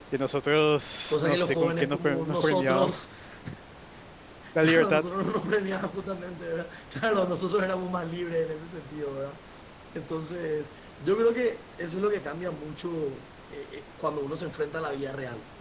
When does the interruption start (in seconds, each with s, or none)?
1.1 s